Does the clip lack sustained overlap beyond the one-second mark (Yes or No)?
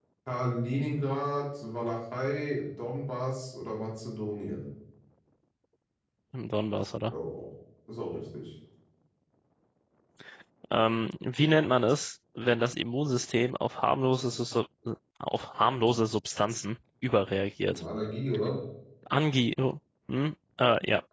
Yes